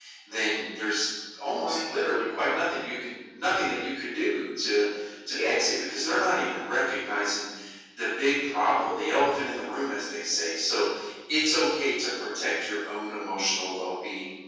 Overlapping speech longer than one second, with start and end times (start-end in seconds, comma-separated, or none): none